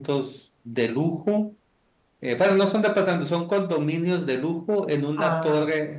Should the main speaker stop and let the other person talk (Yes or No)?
No